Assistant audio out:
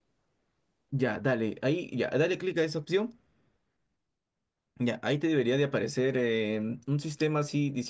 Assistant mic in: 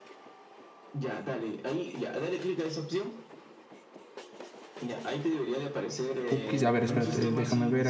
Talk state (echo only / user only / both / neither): both